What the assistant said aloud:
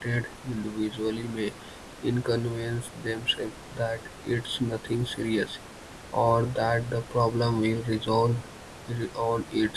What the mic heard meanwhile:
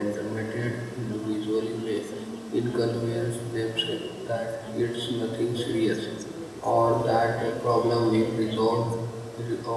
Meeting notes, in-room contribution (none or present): present